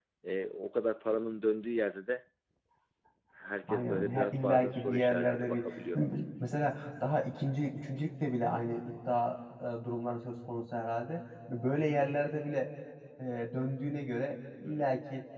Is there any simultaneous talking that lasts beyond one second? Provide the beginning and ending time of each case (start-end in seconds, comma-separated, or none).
3.7-6.0